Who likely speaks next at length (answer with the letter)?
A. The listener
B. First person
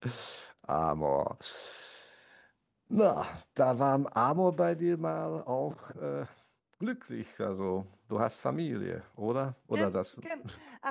A